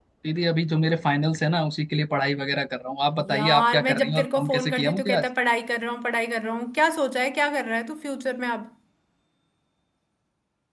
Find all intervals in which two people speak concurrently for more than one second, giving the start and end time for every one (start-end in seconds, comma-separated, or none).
3.3-5.3